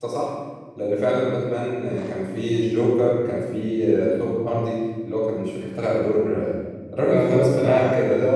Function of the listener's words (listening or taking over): taking over